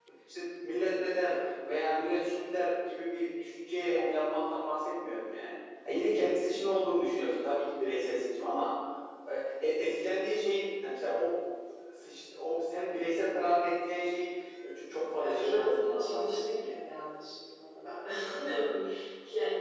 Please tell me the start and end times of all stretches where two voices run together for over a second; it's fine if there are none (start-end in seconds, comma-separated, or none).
15.2-16.8